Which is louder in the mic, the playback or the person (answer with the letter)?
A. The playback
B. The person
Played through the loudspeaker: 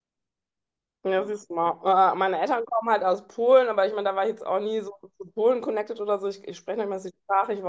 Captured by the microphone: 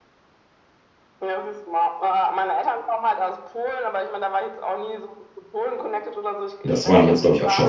B